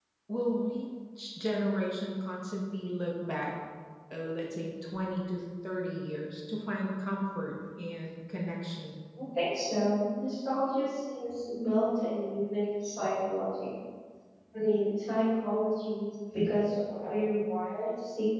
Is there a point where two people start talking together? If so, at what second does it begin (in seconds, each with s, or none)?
none